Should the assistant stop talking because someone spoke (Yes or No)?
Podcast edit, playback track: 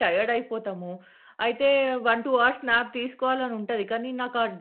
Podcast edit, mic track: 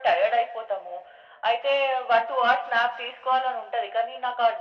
No